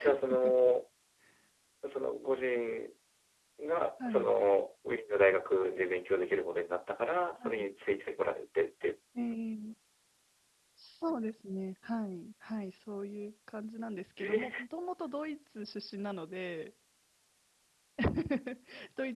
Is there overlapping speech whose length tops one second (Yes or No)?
No